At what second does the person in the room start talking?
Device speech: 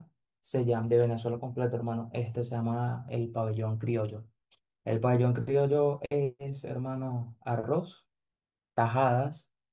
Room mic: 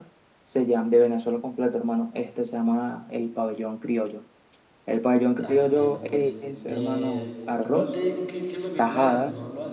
5.4 s

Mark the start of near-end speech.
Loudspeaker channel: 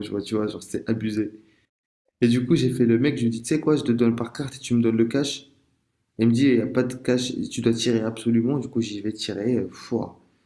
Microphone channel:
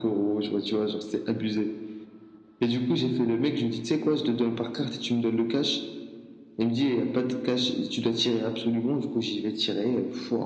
none

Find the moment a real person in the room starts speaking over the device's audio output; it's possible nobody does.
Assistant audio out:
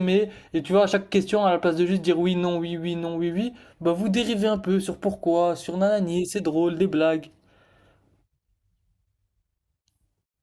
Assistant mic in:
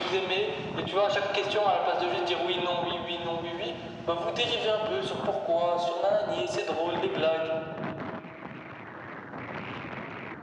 none

